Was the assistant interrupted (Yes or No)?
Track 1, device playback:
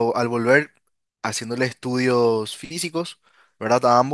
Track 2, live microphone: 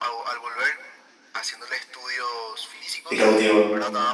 Yes